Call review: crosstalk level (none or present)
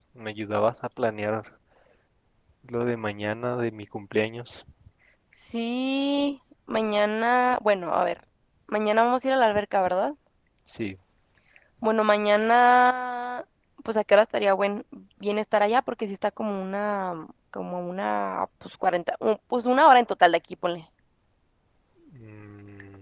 none